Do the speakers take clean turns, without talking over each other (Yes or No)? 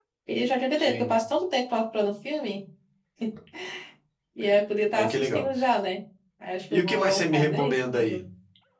No